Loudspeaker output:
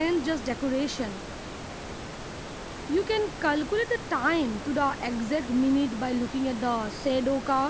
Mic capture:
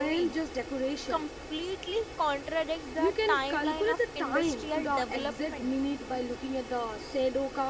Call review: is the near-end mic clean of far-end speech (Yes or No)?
No